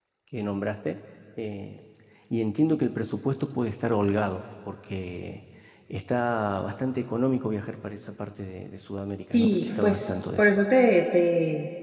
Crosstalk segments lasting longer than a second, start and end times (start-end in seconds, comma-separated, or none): 9.3-10.5